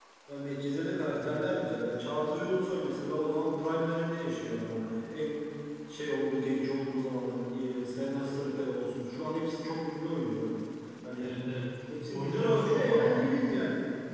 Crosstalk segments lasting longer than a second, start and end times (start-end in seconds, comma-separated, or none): 11.9-13.3